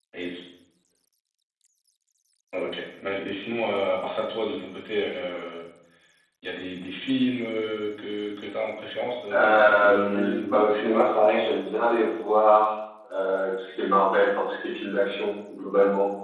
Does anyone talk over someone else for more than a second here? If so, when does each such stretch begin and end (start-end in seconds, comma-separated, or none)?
9.3-11.4